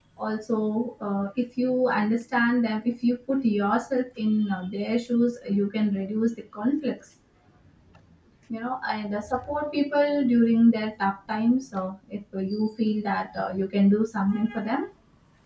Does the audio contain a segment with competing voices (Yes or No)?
No